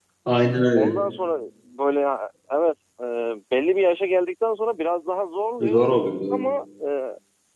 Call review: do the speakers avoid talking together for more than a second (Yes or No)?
Yes